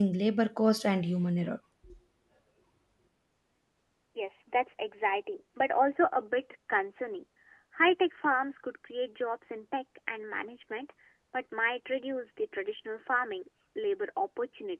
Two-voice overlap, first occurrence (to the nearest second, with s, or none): none